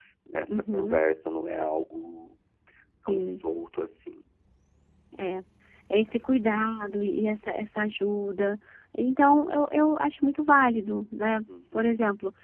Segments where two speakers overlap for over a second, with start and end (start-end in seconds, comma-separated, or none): none